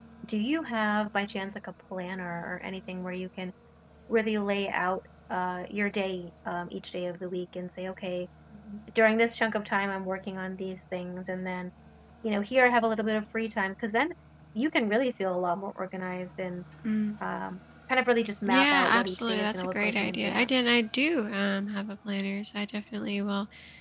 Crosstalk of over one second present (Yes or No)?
Yes